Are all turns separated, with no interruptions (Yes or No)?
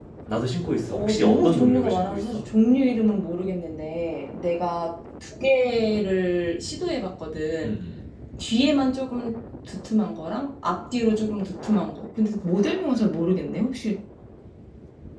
No